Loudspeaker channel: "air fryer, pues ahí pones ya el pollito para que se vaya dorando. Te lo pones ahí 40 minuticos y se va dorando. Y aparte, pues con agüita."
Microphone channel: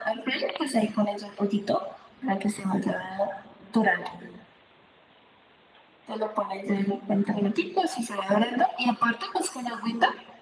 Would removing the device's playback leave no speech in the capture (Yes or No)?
Yes